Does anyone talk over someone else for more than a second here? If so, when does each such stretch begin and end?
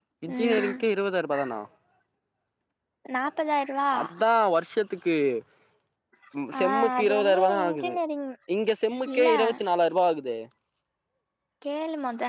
6.6-7.9

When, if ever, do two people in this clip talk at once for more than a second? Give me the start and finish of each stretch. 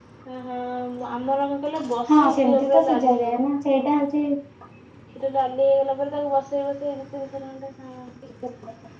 2.1-3.4

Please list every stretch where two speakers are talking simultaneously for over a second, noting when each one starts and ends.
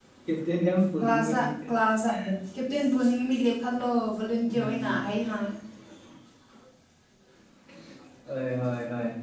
none

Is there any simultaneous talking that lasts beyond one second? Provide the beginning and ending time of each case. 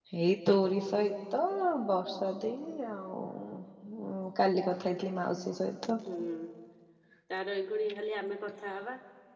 none

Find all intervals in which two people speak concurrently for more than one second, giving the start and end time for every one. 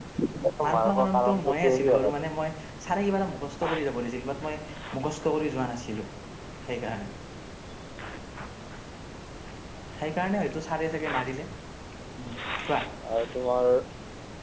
0.7-2.1

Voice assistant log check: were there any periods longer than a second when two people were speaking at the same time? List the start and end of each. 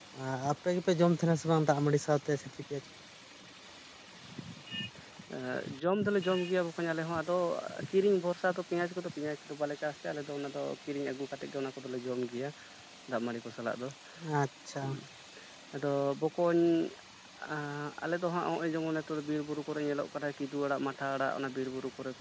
none

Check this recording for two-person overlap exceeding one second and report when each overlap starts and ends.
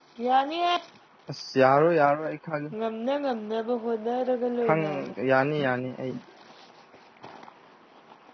none

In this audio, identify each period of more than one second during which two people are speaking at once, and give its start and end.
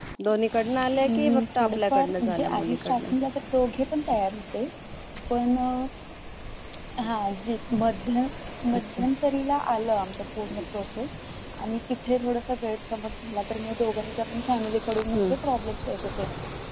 1.0-3.1

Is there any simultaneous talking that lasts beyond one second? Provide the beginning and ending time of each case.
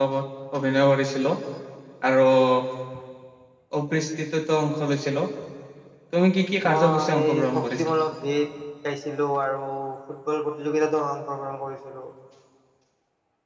6.7-7.9

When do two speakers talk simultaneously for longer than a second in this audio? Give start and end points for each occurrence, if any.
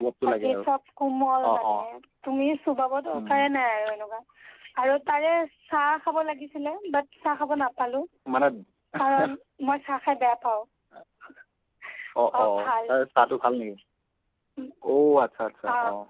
none

